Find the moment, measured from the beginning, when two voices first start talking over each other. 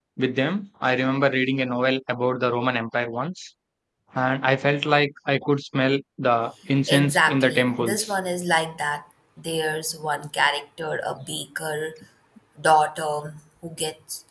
6.9 s

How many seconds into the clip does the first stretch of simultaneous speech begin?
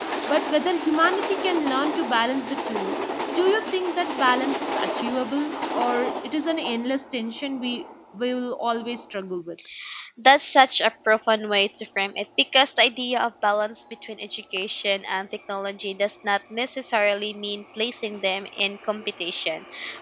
none

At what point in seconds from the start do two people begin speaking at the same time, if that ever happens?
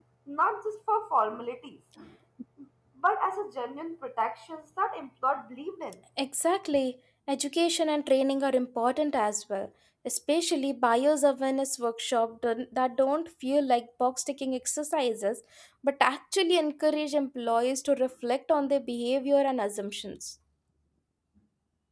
none

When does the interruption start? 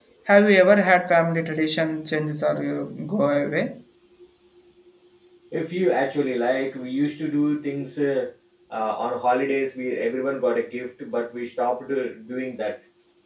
none

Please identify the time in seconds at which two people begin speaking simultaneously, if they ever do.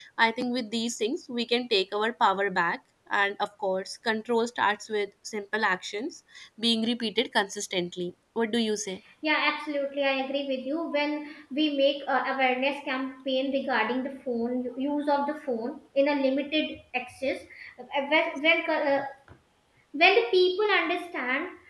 none

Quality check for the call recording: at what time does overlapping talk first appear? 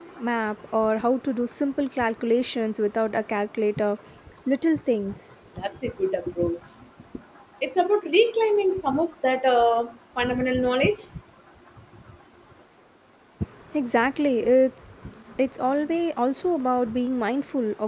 none

